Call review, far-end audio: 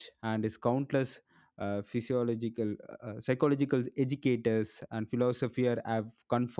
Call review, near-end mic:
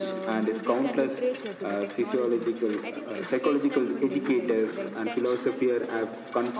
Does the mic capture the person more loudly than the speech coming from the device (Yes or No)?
No